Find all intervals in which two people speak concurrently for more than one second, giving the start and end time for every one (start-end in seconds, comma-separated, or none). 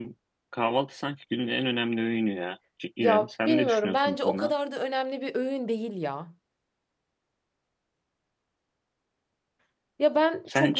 3.0-4.5